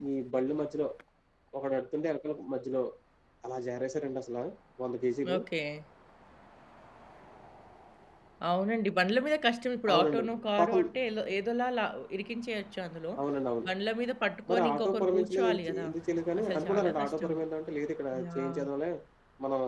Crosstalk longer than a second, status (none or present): present